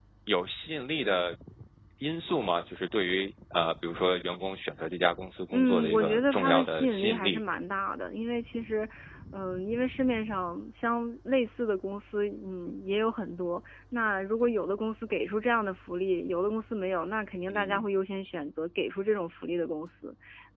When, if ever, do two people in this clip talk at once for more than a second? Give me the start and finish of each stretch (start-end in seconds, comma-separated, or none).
5.5-7.4